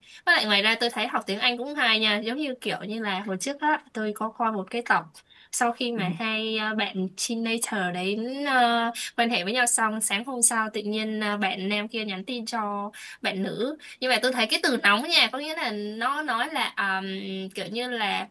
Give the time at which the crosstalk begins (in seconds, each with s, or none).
none